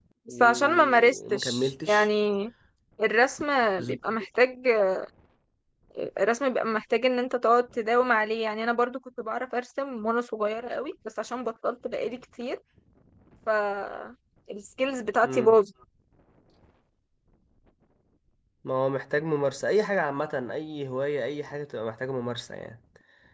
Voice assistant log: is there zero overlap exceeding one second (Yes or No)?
No